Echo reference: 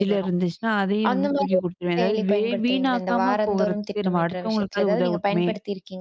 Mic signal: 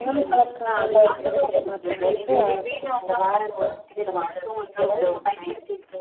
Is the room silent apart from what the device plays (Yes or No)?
No